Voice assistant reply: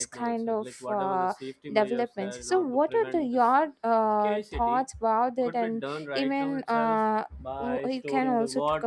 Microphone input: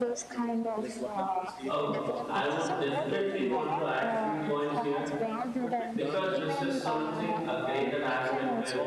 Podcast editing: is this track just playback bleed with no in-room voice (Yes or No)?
No